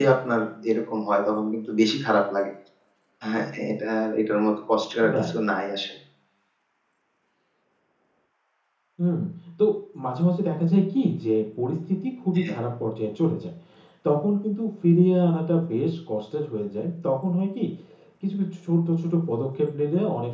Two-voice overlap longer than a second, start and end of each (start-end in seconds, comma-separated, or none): none